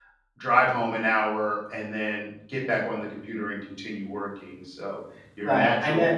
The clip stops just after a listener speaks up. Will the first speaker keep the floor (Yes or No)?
No